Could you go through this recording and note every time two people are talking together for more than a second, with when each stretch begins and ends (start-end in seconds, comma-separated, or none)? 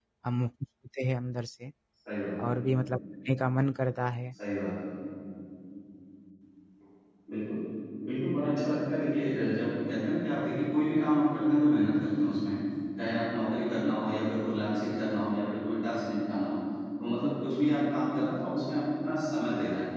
none